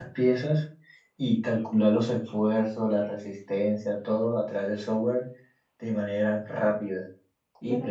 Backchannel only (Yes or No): No